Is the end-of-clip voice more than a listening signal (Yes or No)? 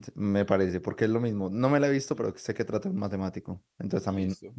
Yes